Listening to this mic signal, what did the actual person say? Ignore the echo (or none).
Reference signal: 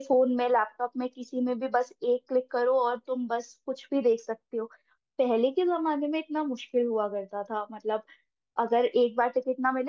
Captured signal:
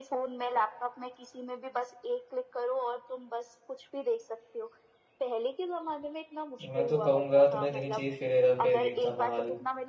मैं तो कहूँगा तुम्हें देखनी चाहिए फिर हेरा फेरी धमाल